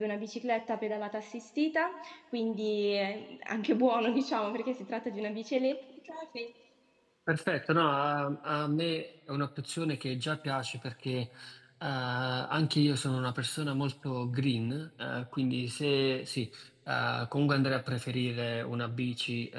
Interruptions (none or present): none